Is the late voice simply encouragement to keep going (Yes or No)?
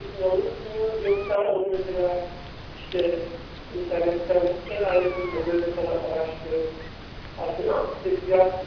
Yes